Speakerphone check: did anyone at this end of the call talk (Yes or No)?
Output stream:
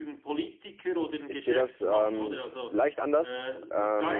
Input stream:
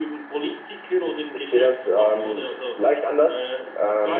No